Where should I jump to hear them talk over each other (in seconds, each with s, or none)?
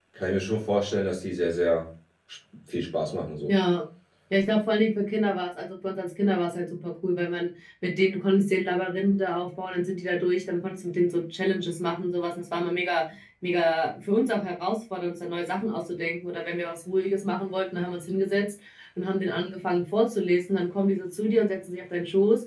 none